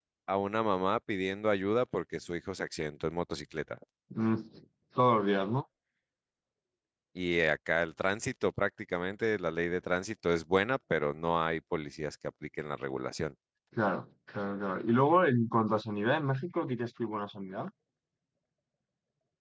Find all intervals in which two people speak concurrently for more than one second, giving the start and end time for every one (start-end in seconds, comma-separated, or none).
none